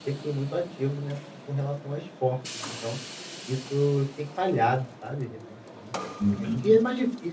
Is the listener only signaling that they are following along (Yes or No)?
Yes